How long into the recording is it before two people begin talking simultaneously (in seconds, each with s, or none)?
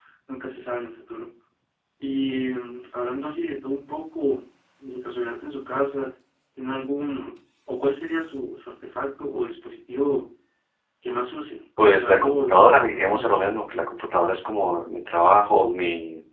11.8 s